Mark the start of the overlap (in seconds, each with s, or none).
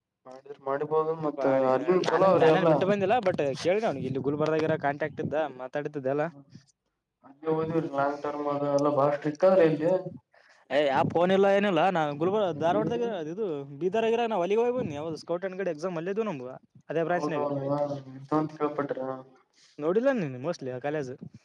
1.4 s